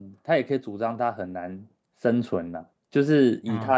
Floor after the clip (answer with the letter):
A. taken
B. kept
B